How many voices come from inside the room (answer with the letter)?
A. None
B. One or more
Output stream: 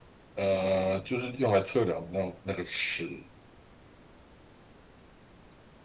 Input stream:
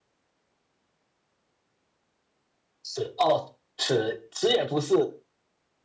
B